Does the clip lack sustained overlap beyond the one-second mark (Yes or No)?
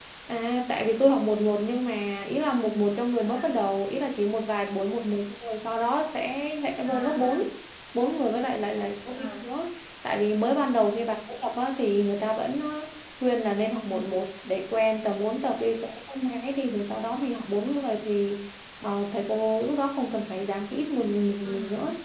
Yes